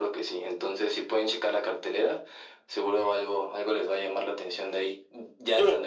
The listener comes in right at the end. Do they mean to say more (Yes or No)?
Yes